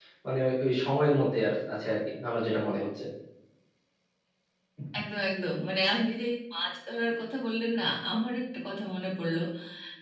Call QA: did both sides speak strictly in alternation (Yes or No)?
Yes